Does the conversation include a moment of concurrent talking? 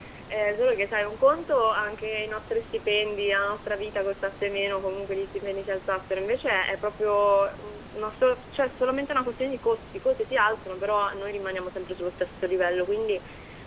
No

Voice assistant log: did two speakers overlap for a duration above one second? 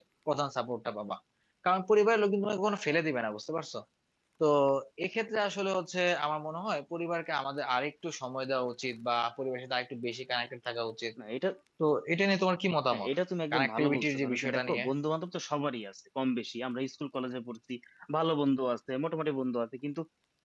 Yes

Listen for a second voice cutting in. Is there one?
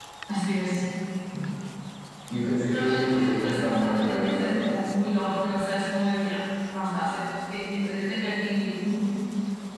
Yes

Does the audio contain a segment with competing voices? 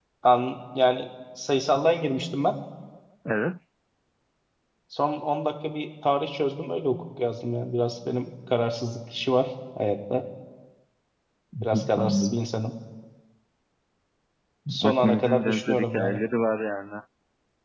Yes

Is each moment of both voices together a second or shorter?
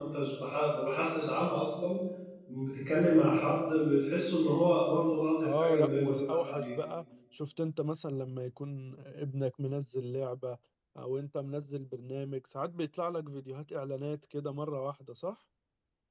No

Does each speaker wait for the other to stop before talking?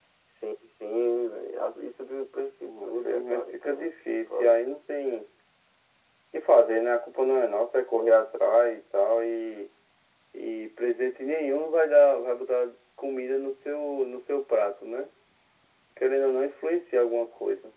No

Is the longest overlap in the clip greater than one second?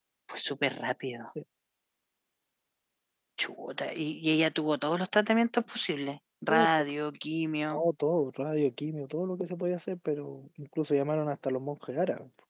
No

